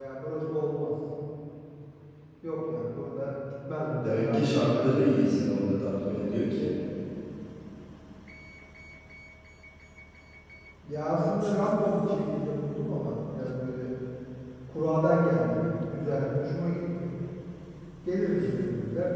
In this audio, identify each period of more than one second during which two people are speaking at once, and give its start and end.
4.0-5.2

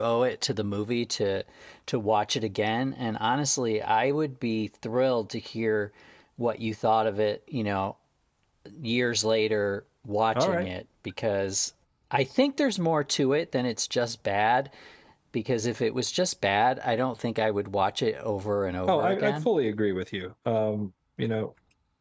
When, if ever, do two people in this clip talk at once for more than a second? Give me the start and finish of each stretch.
none

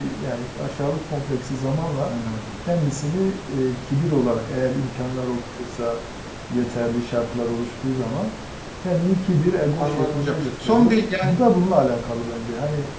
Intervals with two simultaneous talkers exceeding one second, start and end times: 9.8-11.3

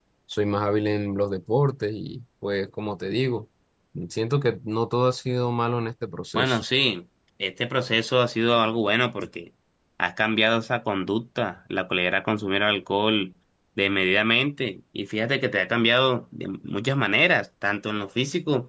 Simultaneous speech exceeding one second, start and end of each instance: none

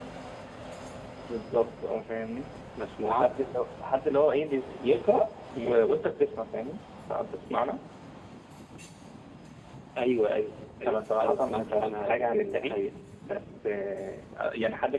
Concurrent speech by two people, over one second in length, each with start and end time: 10.9-12.8

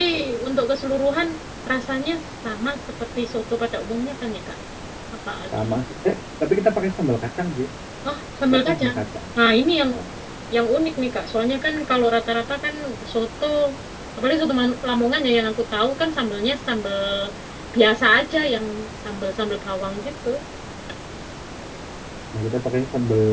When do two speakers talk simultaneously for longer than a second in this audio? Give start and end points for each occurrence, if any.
none

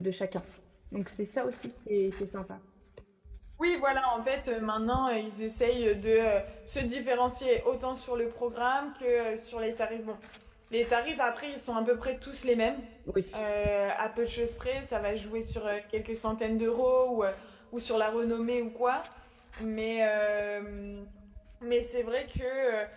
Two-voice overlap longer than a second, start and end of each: none

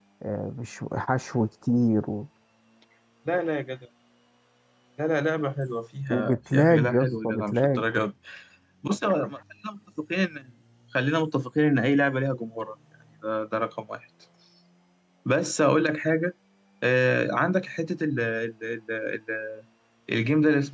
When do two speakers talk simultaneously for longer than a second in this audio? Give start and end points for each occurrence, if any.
6.1-7.8

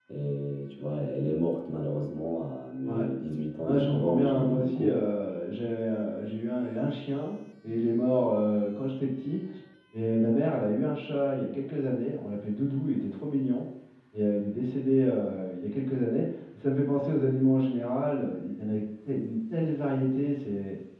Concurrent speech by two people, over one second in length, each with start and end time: 3.6-5.0

